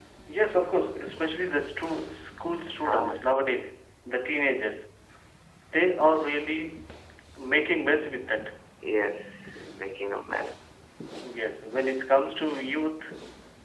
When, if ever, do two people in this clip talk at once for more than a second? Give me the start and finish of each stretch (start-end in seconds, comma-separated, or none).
none